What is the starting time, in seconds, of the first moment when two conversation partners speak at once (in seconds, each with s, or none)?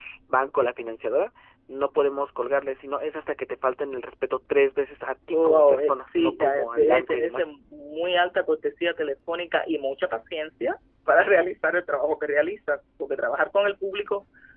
5.3 s